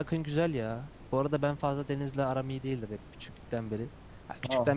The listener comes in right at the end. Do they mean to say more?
No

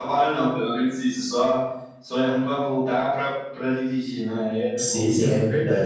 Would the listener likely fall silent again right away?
No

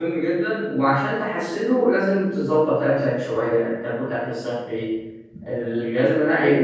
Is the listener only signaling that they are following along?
Yes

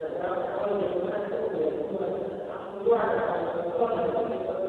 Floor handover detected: No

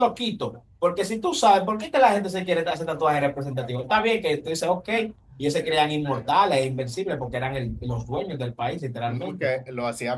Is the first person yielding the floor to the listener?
Yes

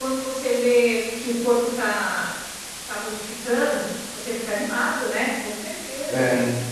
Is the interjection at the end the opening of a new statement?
Yes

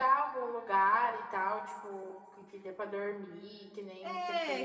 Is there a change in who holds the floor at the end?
Yes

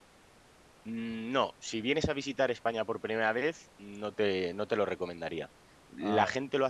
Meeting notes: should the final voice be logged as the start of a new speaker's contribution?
No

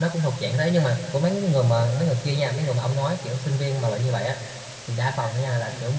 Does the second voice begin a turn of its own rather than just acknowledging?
No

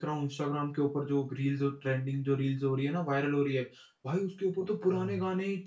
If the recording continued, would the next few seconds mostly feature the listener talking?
No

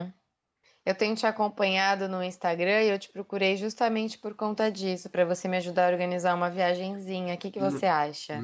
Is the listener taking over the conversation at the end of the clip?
Yes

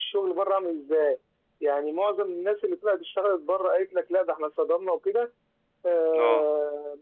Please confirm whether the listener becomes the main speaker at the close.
No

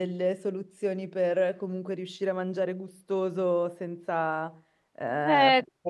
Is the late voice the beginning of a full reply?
No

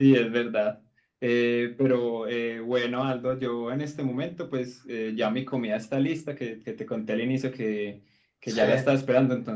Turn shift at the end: No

